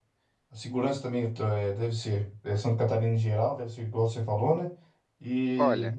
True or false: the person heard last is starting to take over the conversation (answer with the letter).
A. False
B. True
A